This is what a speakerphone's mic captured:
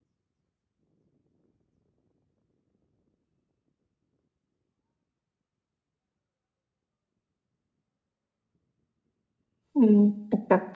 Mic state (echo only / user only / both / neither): user only